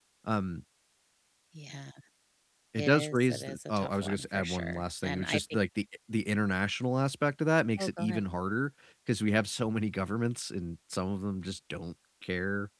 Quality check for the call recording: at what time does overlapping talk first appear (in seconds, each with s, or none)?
2.8 s